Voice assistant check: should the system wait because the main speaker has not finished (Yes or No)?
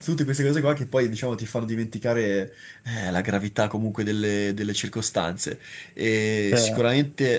Yes